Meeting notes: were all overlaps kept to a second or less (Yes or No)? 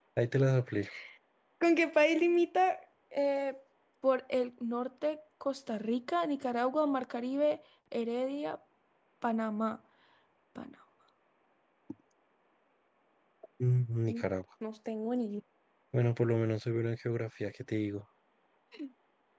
Yes